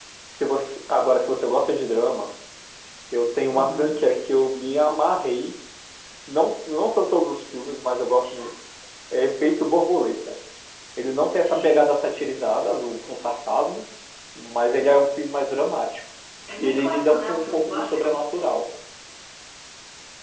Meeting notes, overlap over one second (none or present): present